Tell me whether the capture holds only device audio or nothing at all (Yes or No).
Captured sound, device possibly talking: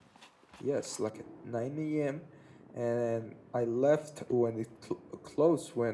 No